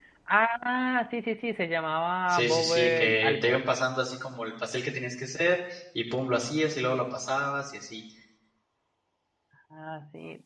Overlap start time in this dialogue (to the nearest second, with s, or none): 2 s